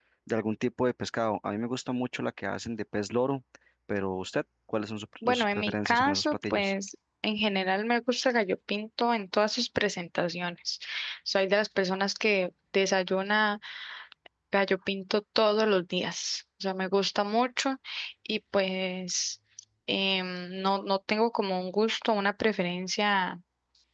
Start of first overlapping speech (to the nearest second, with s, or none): 5 s